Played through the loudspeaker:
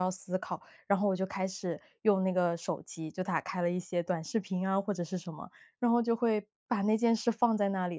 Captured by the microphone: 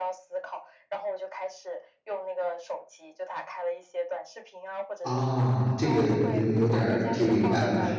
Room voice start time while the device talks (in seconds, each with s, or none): 5.0 s